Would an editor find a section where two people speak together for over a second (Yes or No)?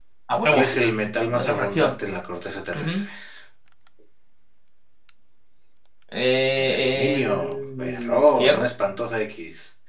Yes